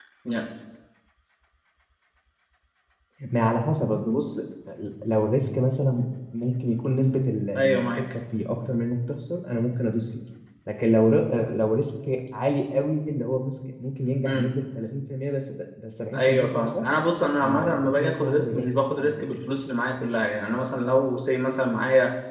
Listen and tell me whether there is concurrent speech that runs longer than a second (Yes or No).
Yes